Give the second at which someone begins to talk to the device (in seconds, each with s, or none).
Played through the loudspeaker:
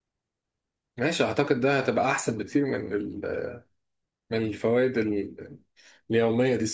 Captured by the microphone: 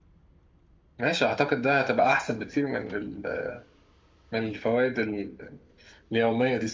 none